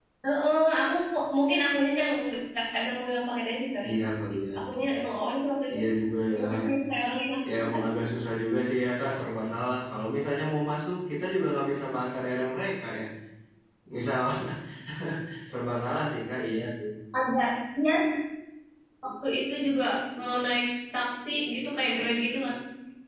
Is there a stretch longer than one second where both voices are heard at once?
No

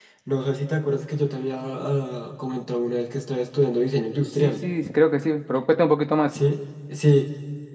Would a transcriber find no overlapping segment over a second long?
Yes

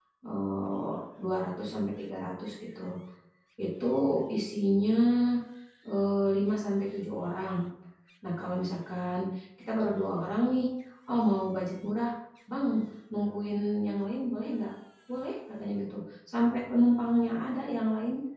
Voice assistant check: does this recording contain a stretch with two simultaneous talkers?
No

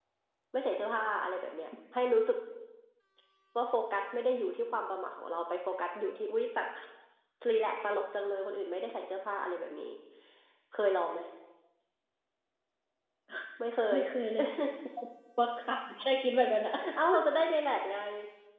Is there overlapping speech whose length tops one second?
No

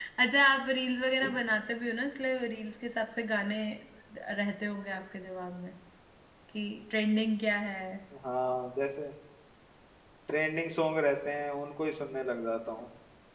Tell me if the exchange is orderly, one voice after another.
Yes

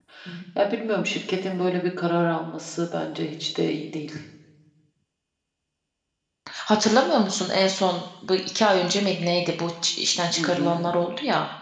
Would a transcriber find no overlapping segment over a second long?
Yes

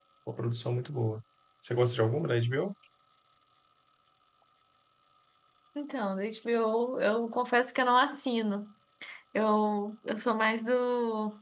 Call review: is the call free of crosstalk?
Yes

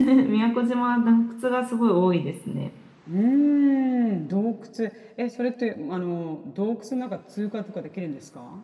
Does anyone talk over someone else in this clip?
No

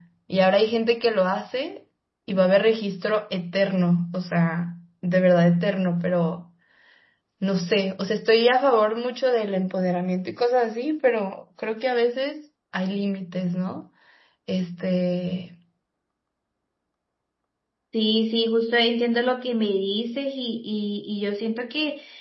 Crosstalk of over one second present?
No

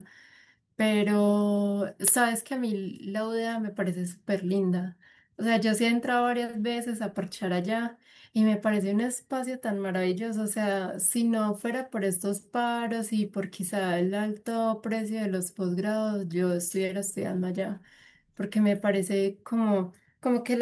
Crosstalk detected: No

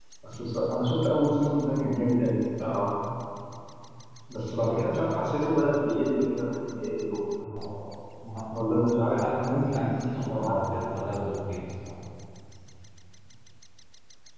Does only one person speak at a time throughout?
No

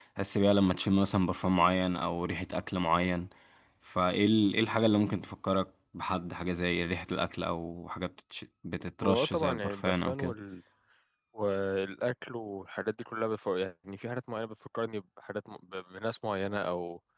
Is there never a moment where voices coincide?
No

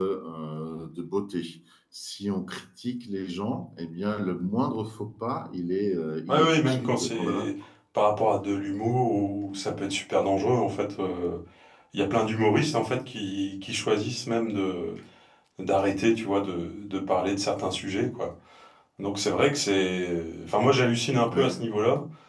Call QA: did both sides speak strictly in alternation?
No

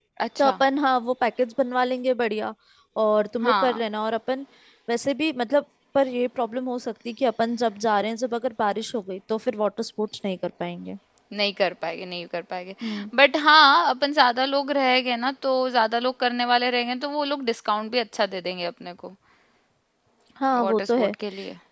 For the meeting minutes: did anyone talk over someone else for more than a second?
No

